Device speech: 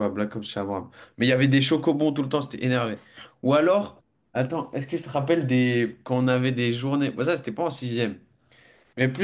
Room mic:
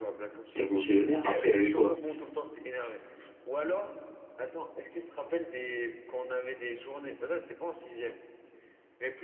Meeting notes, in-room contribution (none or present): present